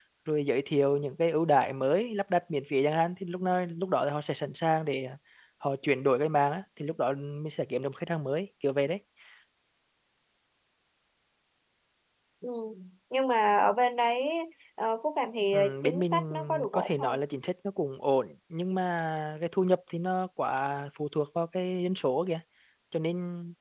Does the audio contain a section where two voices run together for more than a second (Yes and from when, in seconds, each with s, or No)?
Yes, from 15.6 s